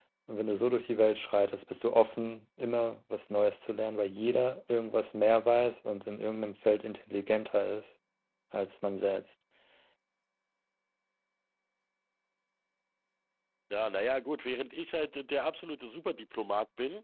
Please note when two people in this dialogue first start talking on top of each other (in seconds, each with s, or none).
none